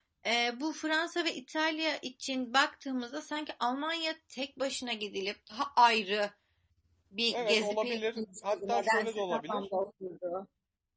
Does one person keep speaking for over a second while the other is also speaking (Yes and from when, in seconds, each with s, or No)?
Yes, from 7.3 s